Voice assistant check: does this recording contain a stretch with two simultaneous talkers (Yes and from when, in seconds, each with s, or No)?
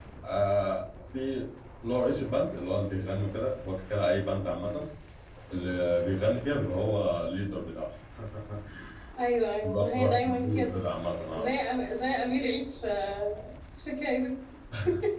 Yes, from 9.6 s